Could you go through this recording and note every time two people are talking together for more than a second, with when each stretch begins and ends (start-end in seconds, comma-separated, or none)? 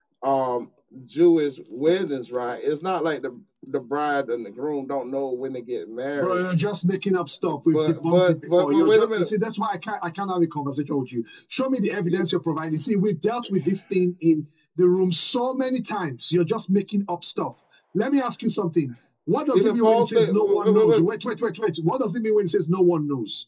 7.7-9.3, 19.5-21.0